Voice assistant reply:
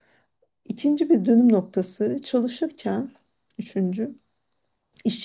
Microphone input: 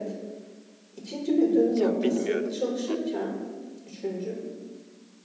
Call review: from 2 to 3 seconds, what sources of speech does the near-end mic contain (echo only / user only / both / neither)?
both